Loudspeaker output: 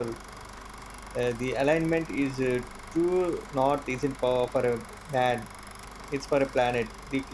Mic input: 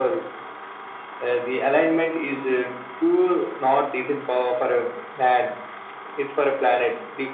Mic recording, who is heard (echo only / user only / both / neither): echo only